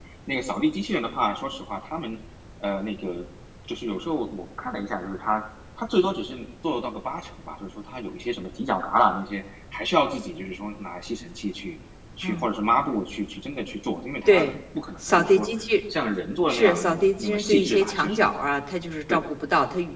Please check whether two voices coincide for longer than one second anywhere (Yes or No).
Yes